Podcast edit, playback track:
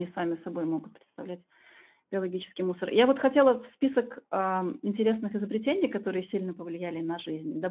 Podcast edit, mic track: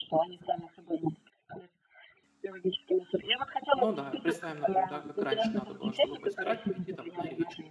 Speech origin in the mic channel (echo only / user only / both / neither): both